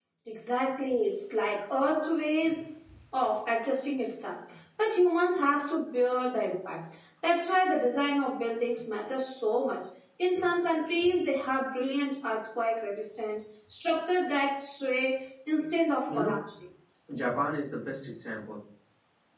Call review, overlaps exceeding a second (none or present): none